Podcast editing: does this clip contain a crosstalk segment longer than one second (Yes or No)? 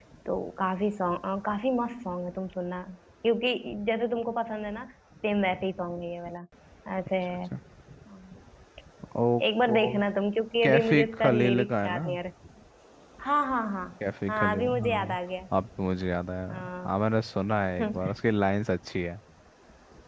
Yes